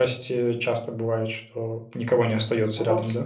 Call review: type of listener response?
taking over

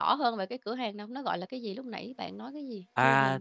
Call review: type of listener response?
taking over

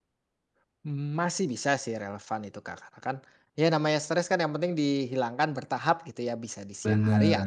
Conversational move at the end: listening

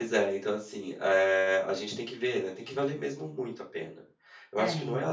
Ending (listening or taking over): listening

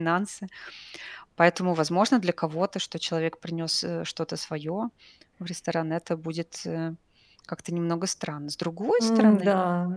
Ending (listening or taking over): taking over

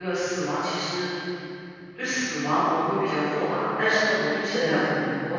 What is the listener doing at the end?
listening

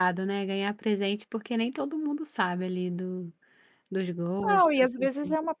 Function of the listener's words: taking over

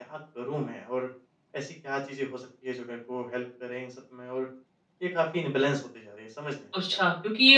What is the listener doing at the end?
taking over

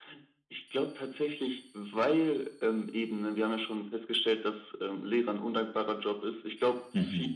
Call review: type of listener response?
listening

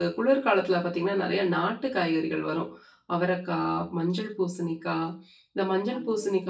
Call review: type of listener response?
listening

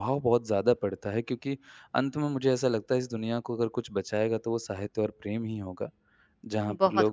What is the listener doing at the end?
taking over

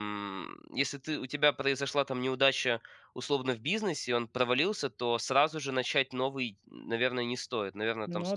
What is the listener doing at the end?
listening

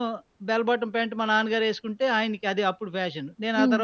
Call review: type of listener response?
listening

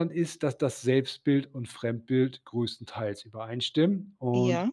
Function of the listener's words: listening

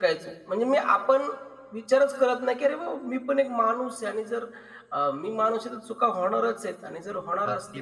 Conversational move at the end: taking over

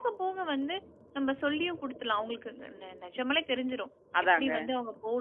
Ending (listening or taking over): listening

